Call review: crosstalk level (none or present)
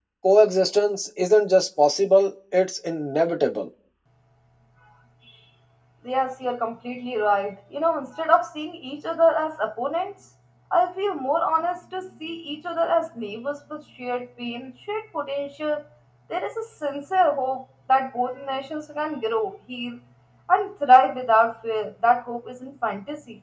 none